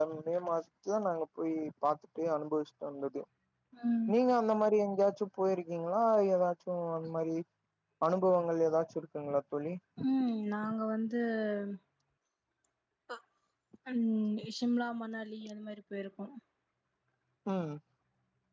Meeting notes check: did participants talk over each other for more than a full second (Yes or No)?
No